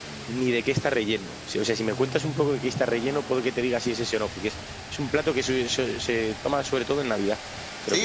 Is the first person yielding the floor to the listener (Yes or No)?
Yes